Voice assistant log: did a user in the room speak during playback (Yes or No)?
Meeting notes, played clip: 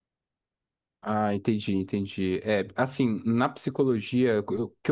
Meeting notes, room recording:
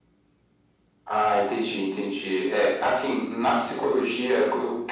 No